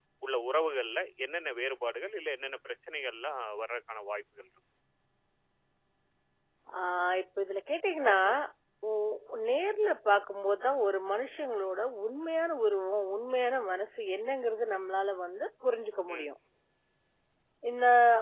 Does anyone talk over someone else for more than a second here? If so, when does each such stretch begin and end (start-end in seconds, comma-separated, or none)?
none